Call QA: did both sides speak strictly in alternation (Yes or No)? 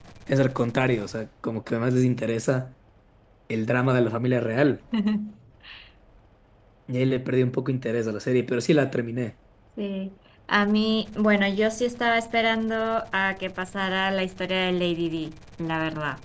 Yes